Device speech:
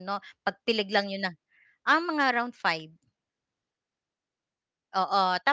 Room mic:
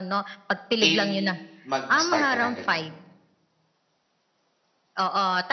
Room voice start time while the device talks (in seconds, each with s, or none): 0.8 s